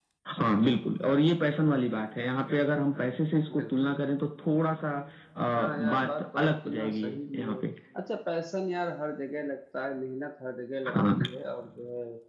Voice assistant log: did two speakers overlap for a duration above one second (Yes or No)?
Yes